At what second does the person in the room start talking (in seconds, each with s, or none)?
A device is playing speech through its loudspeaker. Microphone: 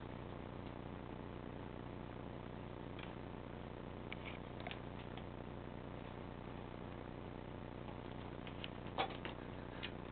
none